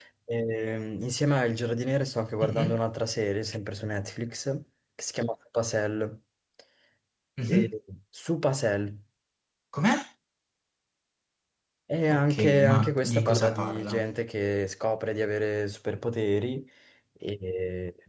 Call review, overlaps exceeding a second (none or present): present